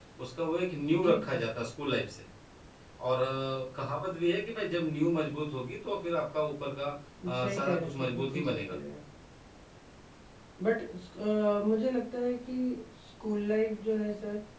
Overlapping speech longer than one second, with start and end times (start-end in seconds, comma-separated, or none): 7.4-8.8